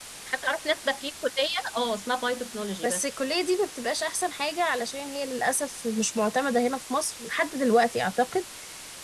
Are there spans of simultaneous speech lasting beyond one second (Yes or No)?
No